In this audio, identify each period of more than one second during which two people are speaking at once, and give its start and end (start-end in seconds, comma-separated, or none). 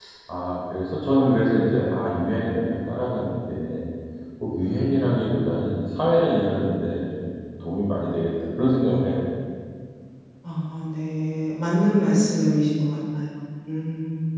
none